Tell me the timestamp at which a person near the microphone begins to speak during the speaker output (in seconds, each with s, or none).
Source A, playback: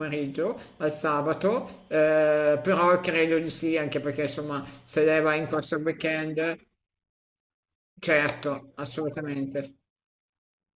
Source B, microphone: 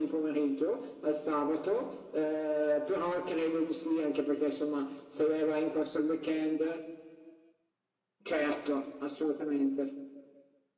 none